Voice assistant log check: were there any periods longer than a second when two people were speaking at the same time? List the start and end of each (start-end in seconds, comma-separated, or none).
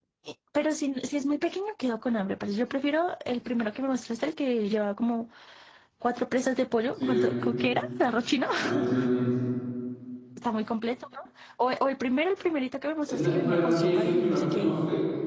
13.1-14.7